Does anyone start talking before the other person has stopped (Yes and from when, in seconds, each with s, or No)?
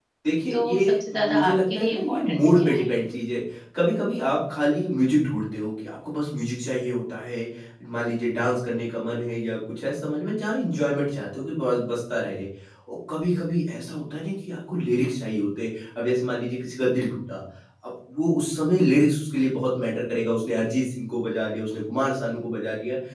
Yes, from 0.5 s